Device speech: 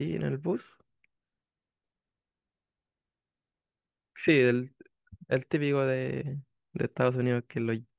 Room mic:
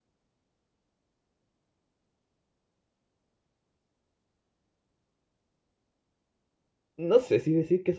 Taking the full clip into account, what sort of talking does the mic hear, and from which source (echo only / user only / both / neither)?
user only